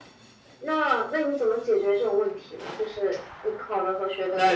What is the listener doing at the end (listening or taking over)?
taking over